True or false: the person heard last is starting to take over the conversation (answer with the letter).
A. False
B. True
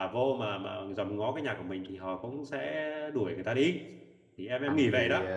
B